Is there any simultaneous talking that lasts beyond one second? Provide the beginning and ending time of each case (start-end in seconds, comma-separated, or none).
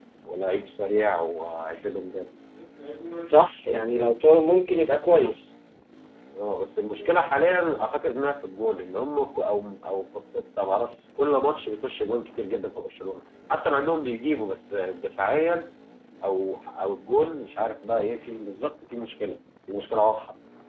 none